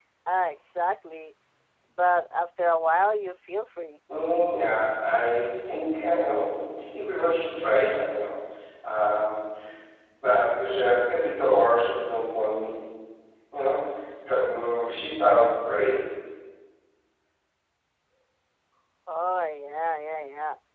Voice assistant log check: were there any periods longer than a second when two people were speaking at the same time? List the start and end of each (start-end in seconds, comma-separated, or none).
none